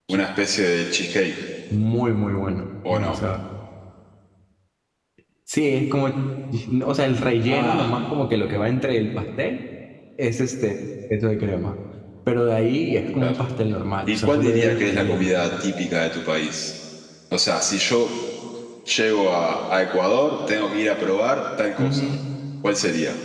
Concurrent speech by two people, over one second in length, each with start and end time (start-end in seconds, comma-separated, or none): 14.1-15.3